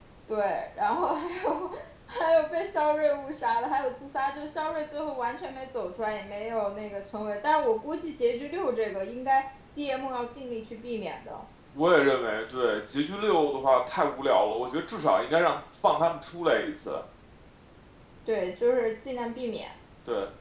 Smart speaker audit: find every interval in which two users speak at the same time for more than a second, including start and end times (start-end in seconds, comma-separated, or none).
none